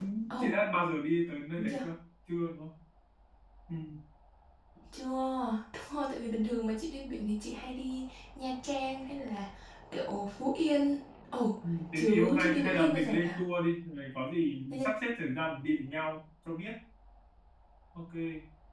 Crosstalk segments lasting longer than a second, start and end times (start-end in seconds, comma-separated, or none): 11.9-13.4